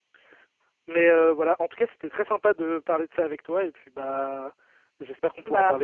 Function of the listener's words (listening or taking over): listening